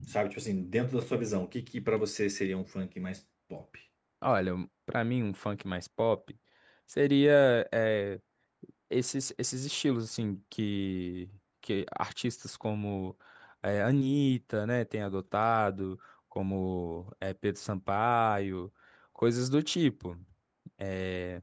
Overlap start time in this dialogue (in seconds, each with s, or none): none